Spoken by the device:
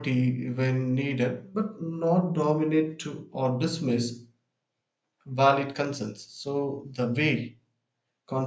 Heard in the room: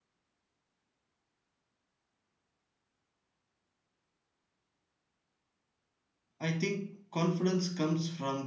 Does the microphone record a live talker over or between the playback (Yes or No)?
Yes